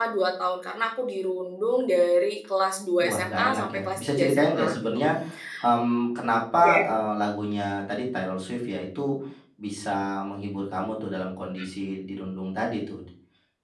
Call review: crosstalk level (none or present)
present